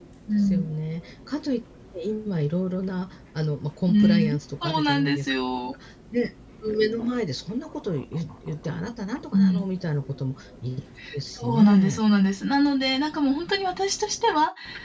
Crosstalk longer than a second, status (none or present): present